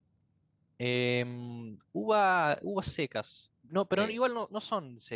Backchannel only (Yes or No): Yes